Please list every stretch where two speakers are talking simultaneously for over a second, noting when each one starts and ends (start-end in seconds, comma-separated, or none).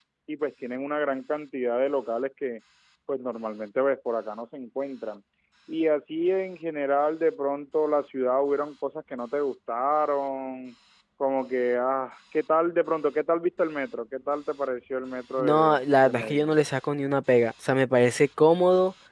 15.4-16.6